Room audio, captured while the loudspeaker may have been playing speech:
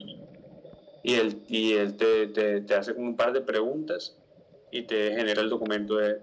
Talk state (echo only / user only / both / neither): echo only